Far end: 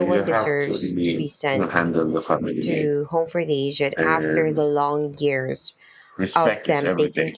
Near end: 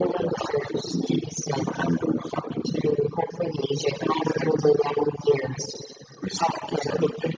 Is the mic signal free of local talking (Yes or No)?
Yes